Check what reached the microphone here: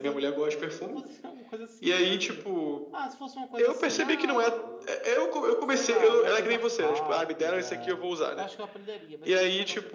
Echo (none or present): present